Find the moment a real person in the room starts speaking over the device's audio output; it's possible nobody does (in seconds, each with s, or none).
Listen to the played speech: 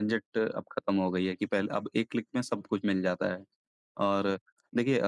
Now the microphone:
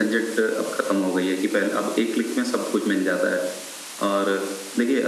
none